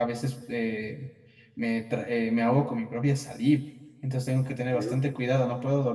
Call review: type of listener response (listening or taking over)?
listening